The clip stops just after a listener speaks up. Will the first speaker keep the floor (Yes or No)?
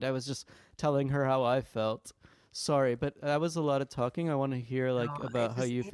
No